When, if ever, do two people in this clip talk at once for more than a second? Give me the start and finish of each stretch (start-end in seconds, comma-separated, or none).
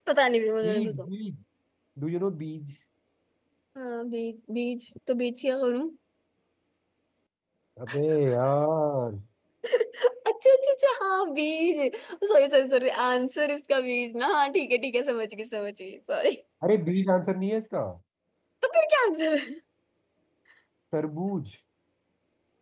none